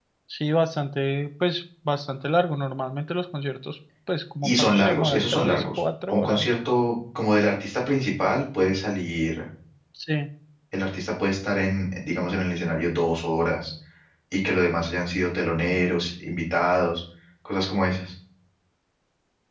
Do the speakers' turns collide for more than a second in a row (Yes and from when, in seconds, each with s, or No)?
Yes, from 4.4 s